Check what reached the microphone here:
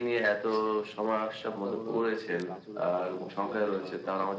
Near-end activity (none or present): present